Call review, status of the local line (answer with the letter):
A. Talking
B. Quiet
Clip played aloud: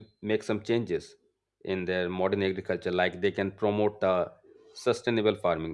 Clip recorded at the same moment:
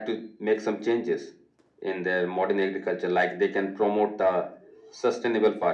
B